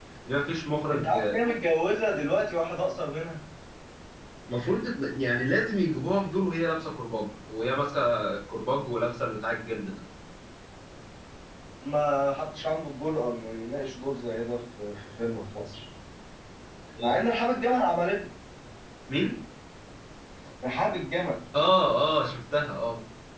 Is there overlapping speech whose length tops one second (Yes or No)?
No